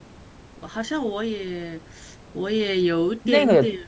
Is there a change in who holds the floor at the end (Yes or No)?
Yes